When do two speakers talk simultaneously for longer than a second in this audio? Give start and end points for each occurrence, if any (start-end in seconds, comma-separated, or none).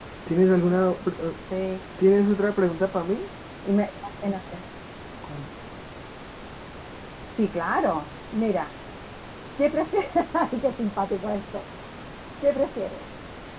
none